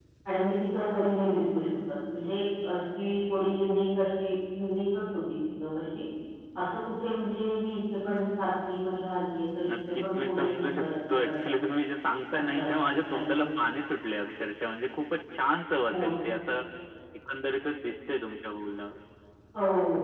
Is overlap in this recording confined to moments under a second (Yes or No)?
No